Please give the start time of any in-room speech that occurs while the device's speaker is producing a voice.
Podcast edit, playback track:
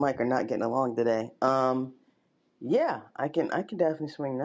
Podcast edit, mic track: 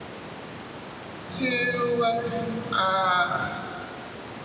1.4 s

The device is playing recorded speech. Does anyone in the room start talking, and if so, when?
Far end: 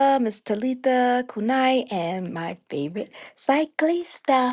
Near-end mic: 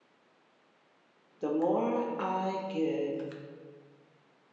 1.4 s

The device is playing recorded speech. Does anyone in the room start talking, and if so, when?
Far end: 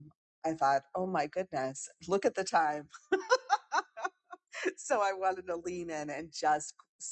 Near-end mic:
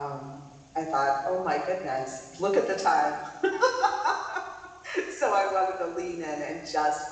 none

